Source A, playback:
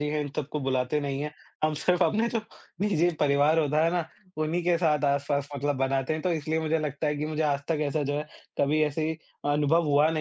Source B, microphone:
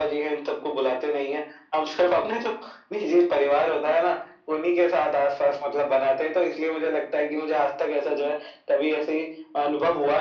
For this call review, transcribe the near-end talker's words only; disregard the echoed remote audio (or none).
none